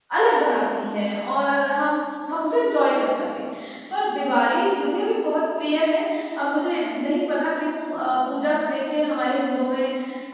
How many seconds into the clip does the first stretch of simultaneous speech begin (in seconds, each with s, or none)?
none